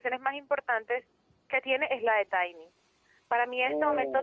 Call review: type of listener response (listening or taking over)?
listening